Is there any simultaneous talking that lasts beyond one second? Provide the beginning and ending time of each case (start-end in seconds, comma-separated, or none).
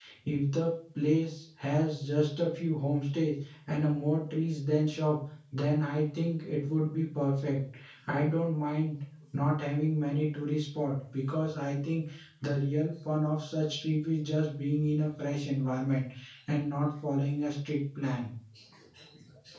none